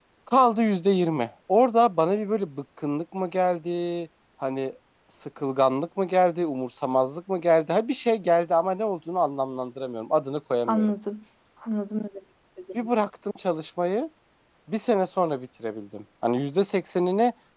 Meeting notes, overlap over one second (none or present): none